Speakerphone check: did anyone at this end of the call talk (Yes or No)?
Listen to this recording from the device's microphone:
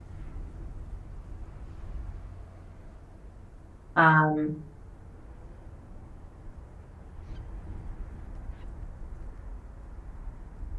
Yes